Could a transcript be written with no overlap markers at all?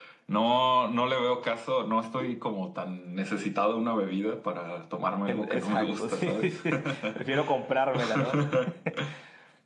No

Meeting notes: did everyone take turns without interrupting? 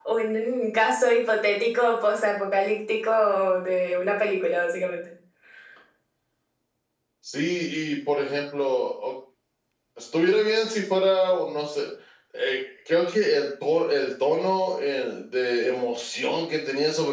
Yes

